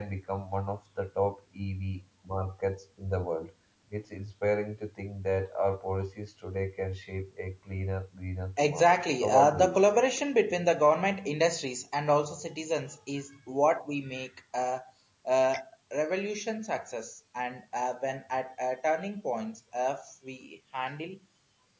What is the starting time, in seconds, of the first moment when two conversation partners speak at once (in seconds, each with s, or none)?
8.6 s